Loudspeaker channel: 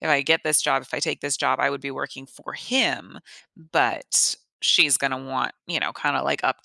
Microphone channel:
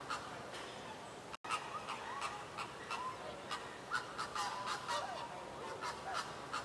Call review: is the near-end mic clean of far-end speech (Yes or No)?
Yes